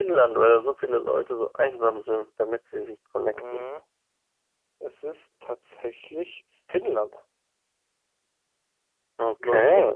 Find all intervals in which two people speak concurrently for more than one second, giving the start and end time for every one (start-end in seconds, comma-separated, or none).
none